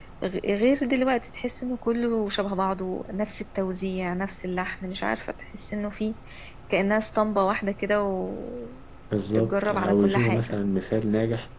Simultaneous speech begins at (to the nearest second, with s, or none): 9 s